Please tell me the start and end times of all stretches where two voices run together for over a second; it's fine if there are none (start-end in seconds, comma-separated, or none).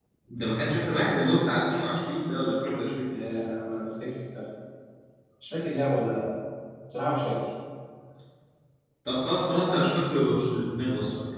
none